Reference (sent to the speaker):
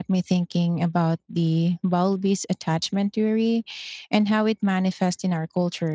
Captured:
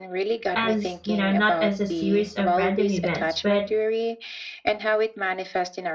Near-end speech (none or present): present